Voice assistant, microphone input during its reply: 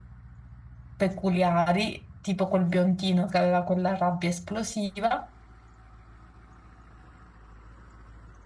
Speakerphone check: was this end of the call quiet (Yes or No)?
No